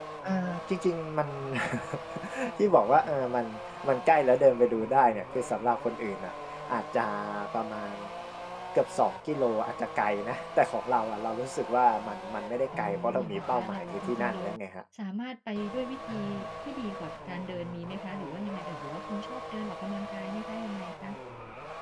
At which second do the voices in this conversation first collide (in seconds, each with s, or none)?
12.8 s